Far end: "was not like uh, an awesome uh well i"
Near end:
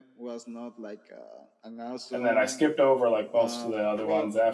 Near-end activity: present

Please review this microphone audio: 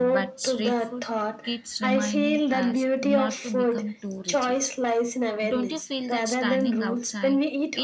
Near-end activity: present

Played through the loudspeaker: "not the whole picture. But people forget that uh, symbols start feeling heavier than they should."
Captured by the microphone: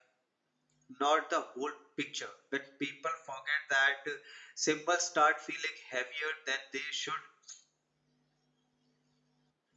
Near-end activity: none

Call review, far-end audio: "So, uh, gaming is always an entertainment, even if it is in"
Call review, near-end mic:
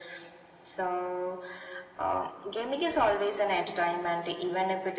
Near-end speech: none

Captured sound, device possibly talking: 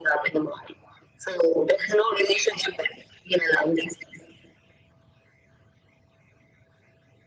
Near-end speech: none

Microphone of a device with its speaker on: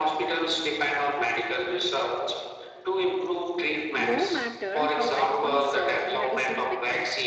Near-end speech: present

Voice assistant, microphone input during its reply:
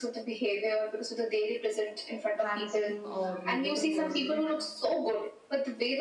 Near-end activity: present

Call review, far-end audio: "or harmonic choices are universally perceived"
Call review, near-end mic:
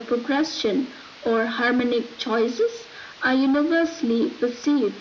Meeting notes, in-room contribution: none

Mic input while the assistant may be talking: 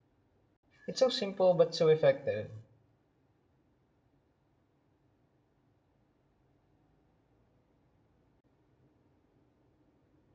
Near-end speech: present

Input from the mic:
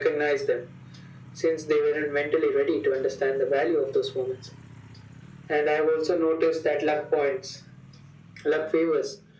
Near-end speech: none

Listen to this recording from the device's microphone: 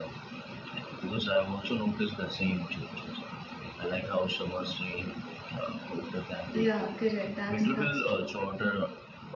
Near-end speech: present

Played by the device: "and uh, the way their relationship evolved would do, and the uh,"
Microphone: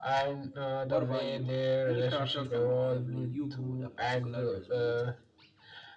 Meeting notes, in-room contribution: present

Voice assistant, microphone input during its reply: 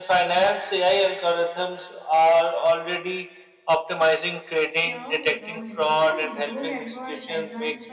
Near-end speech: present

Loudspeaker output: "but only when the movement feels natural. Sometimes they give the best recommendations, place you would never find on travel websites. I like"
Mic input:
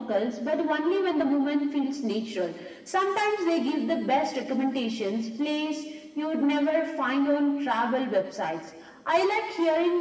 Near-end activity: none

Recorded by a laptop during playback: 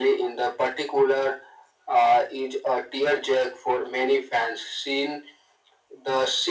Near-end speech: none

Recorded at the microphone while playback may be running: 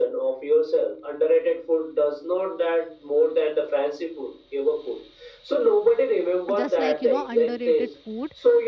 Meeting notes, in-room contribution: present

